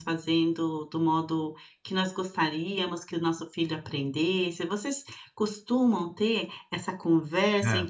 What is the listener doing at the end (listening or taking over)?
listening